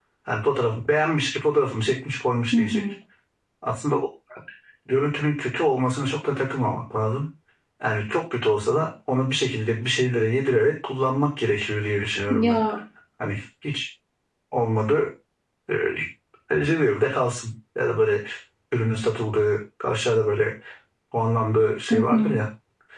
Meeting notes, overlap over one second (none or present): none